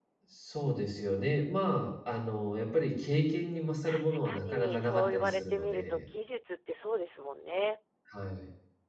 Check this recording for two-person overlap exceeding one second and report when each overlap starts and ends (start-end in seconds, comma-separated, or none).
3.8-6.0